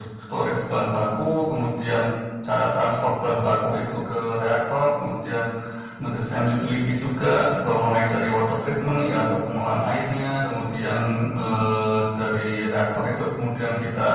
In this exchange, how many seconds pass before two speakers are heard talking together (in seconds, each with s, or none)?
none